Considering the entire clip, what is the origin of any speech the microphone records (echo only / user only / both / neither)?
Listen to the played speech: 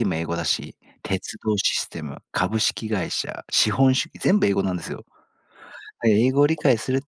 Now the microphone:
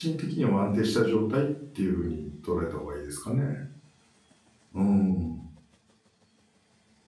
user only